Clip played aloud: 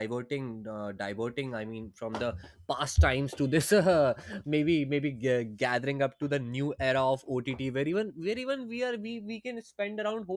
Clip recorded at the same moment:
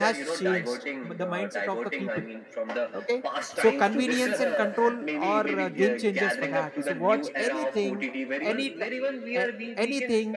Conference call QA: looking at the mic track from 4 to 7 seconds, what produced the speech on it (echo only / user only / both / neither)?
both